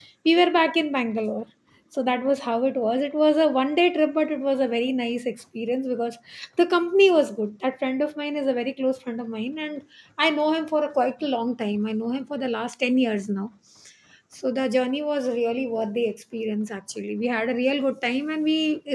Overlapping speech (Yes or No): No